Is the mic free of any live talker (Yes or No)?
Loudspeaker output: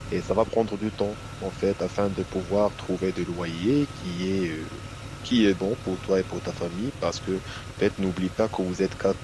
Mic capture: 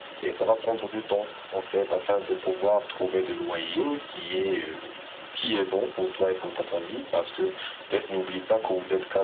Yes